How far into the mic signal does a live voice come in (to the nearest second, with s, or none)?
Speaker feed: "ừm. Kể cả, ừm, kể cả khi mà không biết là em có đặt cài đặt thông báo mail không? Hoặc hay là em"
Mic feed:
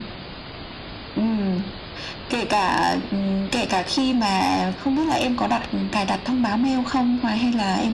none